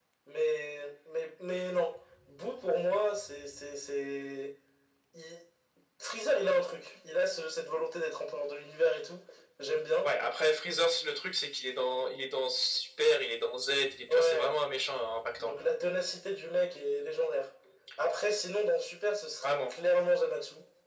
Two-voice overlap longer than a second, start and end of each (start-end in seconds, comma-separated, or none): none